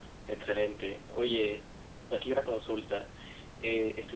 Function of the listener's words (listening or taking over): listening